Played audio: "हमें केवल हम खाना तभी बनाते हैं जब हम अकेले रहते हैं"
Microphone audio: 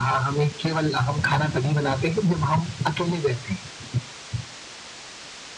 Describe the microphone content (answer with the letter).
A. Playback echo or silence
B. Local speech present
A